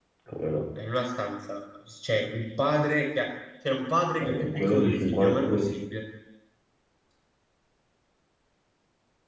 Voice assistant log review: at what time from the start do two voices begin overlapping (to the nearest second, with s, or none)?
4 s